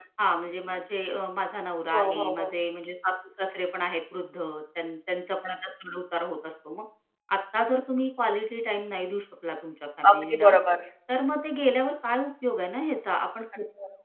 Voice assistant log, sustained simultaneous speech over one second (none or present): none